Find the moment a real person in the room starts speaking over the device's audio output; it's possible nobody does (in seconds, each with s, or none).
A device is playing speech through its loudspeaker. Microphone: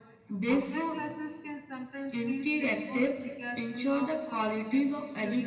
none